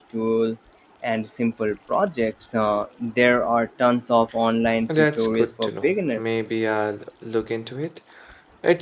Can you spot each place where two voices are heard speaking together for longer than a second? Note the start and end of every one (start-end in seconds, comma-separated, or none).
4.9-6.2